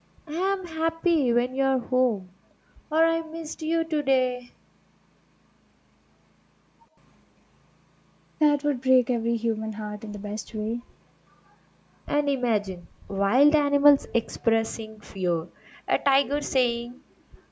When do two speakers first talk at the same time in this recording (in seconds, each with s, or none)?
none